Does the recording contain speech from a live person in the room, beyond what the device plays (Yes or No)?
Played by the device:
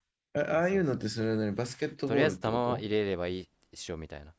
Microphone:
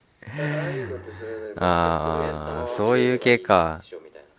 Yes